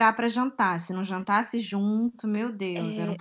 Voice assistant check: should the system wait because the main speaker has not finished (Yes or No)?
No